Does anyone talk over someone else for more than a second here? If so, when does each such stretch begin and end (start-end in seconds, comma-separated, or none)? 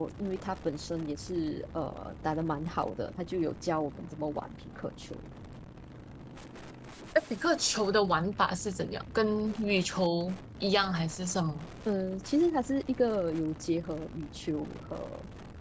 none